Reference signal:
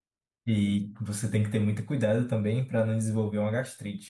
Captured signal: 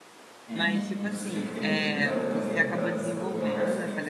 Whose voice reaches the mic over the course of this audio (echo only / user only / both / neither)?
both